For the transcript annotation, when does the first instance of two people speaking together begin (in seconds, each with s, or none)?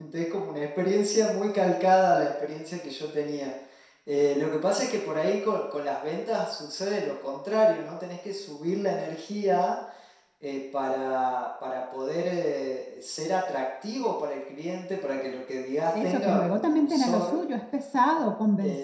15.9 s